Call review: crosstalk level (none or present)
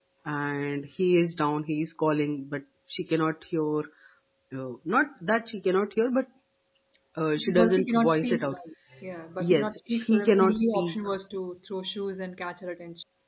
present